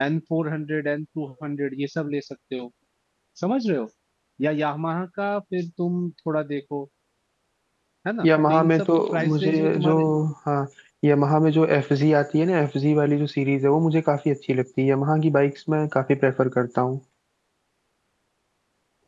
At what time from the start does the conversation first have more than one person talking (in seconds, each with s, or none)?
8.2 s